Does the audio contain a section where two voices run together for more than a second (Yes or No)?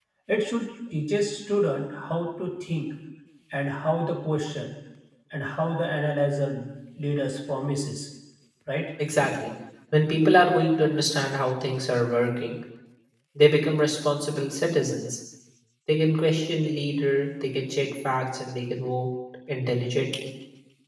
No